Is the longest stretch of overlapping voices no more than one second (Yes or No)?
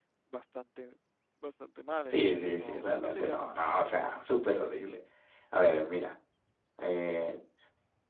No